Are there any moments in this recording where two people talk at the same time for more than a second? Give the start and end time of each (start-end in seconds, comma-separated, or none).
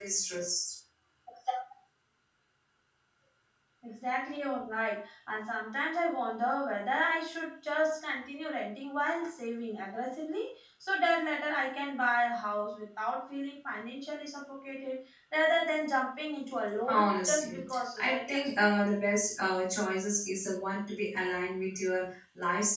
16.9-18.8